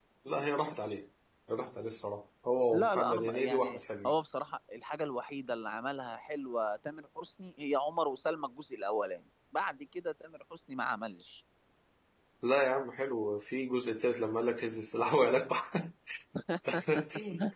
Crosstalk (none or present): present